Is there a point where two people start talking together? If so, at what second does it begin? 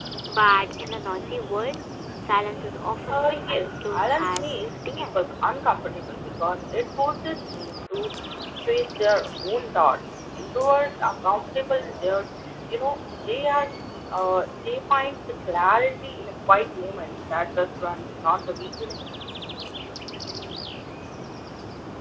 3.1 s

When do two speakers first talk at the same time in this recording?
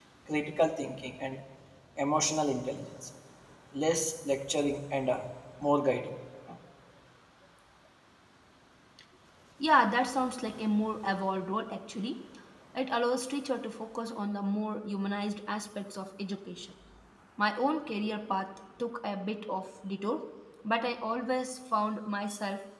none

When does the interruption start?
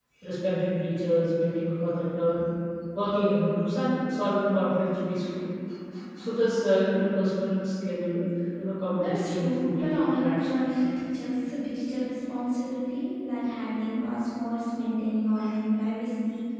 9.0 s

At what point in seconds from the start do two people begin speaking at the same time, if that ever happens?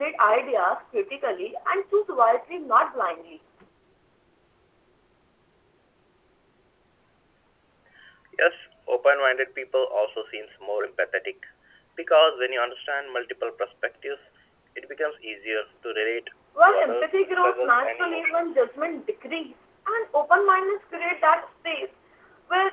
16.6 s

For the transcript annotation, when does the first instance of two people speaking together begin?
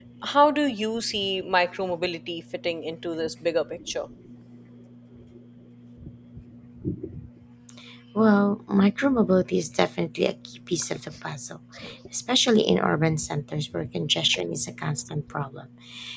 none

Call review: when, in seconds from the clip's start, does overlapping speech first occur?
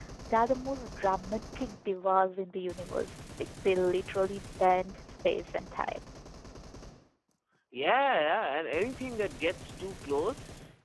none

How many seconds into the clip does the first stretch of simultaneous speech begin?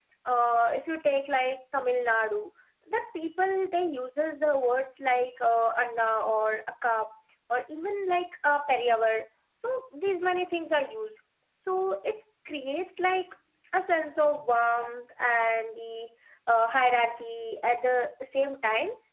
none

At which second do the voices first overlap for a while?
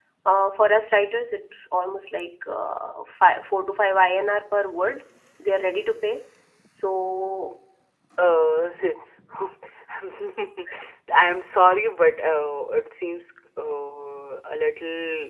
none

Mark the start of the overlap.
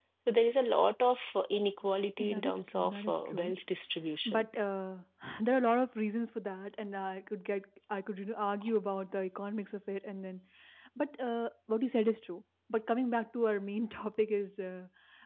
2.2 s

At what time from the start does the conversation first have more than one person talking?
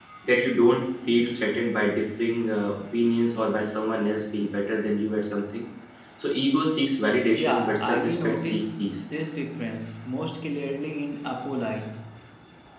7.4 s

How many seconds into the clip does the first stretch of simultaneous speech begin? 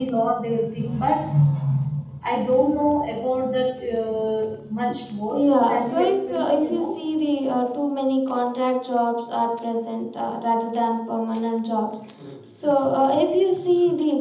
5.3 s

